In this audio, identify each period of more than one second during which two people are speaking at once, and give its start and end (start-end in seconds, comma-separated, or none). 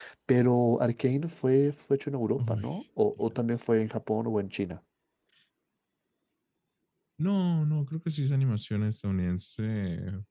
none